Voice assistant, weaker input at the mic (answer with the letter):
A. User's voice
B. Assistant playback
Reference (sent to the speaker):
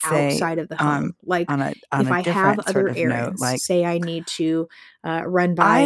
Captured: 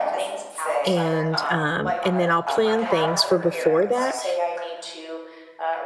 B